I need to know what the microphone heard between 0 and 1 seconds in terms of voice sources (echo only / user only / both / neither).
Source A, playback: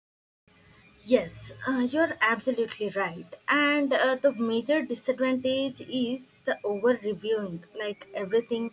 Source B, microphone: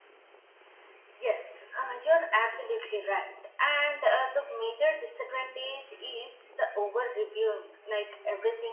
neither